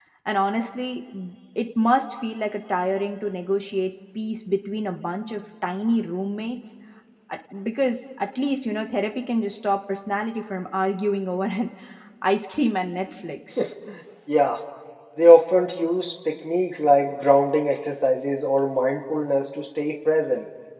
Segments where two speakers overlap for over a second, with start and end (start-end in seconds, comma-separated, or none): none